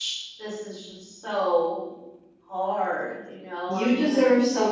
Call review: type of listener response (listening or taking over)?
taking over